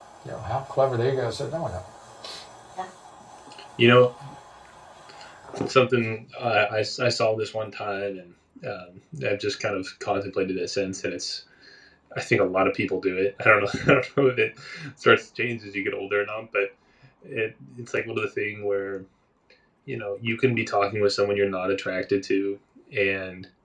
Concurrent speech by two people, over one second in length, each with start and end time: none

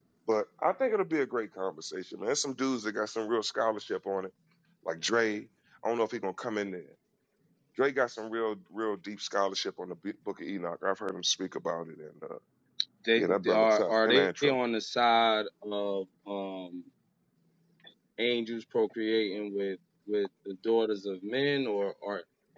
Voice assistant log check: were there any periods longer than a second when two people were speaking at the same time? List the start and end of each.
13.2-14.6

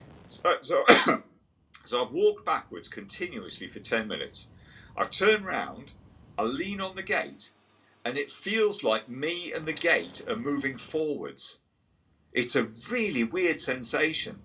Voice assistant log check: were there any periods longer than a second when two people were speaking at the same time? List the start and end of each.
none

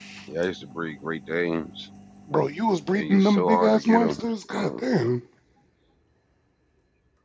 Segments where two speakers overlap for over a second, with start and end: 2.9-4.8

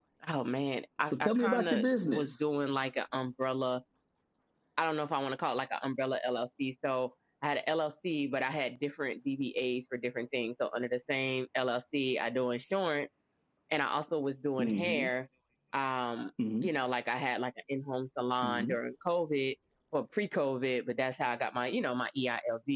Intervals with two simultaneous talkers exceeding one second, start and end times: 1.1-2.4

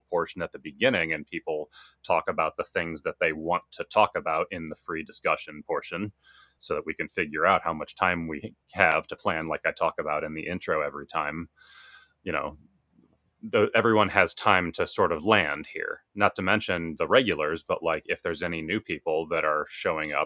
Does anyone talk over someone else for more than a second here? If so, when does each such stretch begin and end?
none

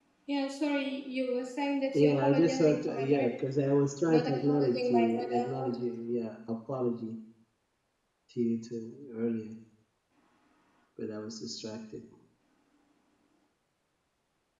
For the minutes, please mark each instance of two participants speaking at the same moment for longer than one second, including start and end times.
1.9-3.3, 4.1-5.8

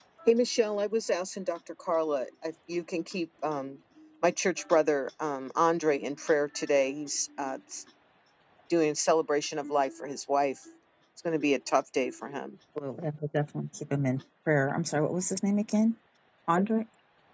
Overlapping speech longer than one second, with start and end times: none

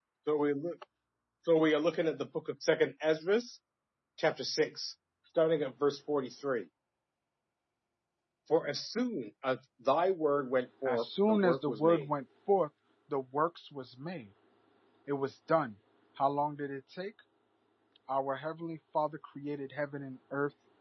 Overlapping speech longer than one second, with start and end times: 10.8-12.1

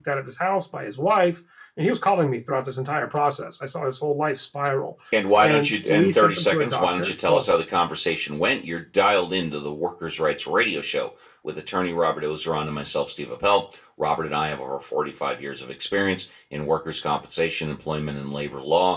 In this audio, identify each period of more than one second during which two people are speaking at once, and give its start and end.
5.4-7.5

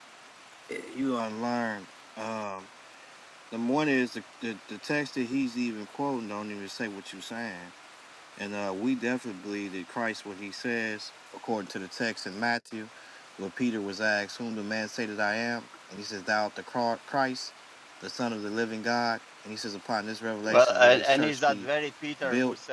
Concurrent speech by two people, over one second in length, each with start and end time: 20.5-21.7

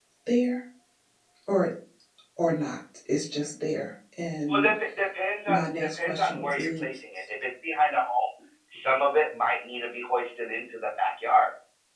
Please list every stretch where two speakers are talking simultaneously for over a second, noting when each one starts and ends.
5.5-6.8

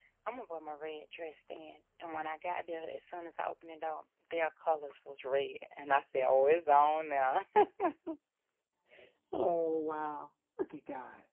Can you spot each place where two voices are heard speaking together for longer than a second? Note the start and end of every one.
none

